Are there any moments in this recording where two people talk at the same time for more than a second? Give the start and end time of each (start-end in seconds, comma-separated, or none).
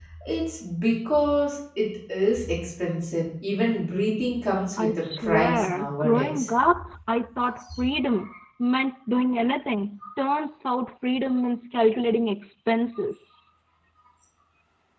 4.8-6.5